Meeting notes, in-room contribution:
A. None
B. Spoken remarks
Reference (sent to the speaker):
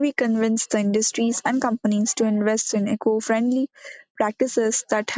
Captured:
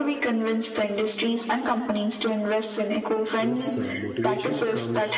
B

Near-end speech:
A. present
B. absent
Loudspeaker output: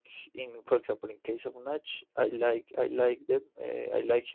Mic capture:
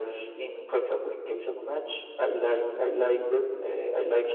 B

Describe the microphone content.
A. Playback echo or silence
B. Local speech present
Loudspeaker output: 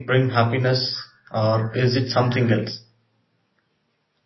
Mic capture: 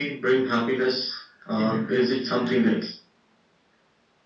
B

